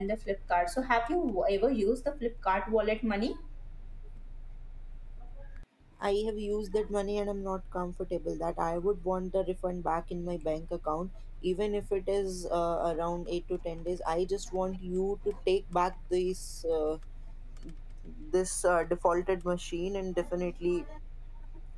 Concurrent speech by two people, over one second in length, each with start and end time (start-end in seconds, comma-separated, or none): none